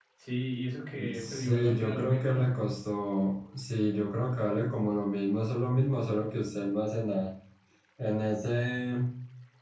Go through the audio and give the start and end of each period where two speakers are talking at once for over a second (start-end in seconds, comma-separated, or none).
1.1-2.5